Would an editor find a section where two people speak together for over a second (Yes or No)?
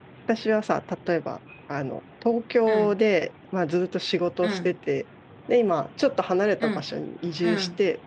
No